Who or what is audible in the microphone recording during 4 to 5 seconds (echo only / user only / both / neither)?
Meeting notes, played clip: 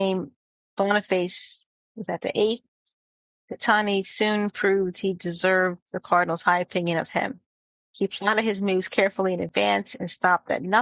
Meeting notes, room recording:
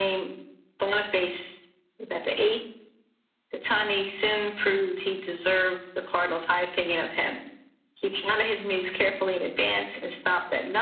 echo only